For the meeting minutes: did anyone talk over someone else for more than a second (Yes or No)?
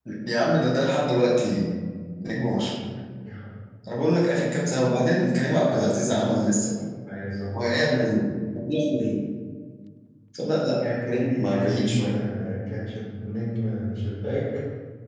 Yes